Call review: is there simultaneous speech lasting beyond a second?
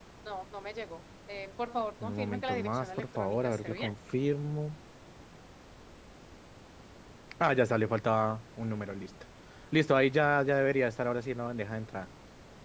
Yes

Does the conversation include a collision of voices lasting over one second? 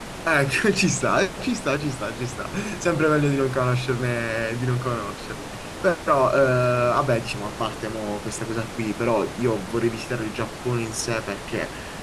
No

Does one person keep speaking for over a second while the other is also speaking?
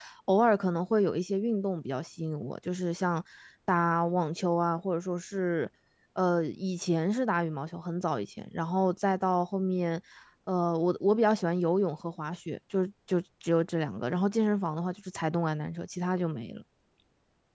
No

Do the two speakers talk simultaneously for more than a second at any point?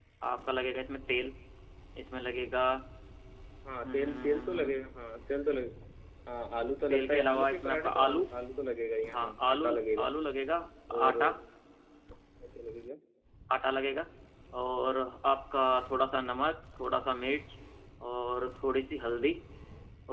Yes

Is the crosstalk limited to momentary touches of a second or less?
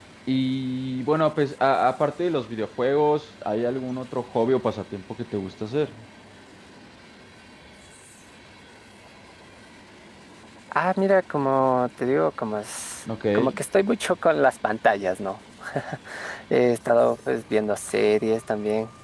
Yes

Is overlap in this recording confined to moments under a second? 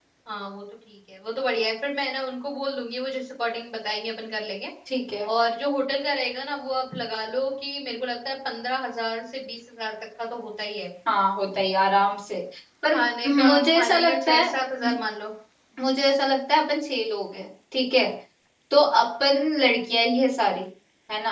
No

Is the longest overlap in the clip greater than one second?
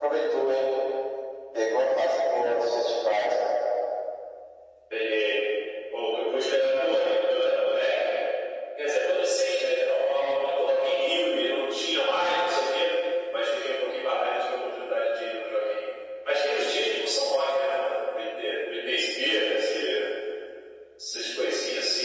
No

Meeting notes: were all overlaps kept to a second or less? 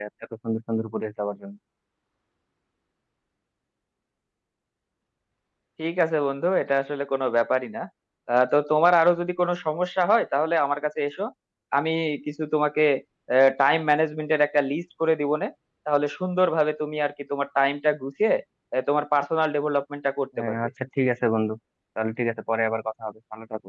Yes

